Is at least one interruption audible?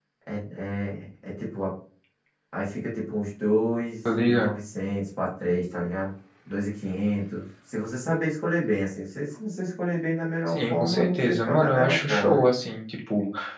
Yes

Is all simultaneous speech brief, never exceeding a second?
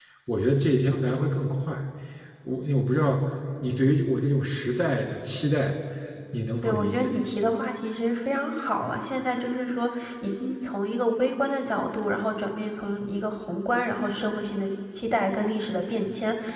Yes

